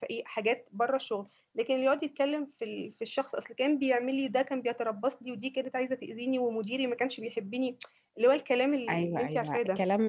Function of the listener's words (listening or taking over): taking over